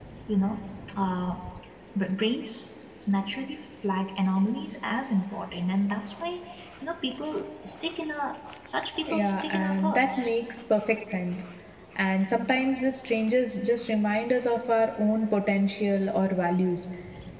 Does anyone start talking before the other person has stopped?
Yes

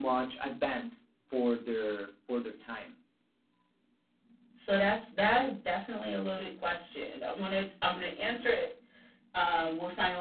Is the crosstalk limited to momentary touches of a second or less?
Yes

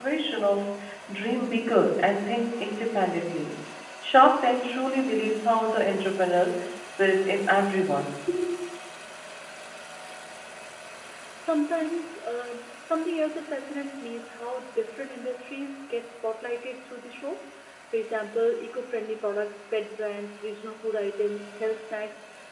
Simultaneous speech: No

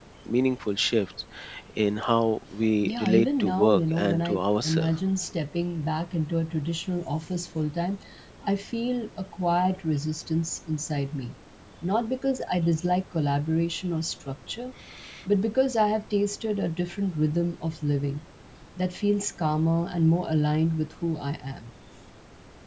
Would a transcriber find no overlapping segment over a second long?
No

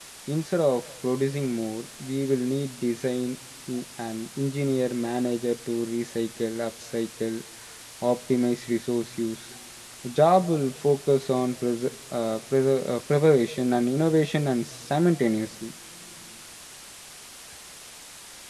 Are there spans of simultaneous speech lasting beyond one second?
No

